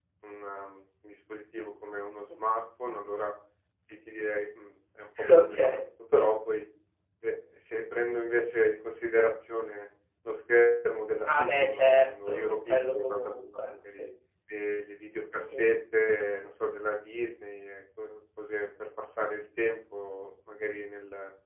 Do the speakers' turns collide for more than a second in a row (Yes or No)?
Yes